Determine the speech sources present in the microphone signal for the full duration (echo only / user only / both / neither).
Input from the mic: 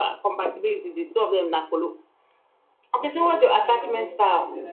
both